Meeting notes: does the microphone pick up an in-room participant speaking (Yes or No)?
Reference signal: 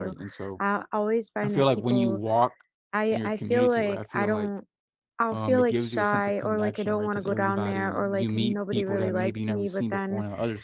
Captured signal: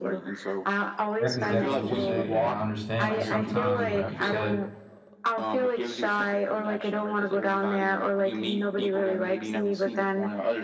Yes